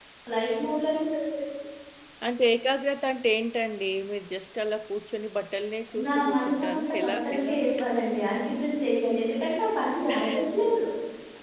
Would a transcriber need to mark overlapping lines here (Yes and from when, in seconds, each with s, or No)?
Yes, from 6.1 s